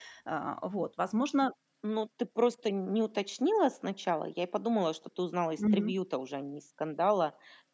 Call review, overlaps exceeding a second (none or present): none